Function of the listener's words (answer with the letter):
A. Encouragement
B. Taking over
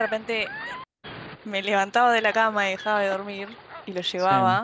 A